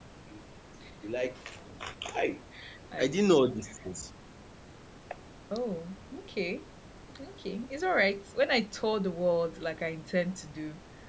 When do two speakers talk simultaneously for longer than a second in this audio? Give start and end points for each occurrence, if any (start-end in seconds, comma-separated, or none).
none